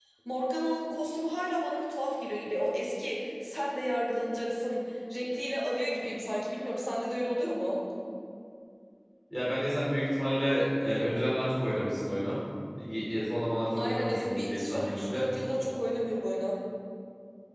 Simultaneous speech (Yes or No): Yes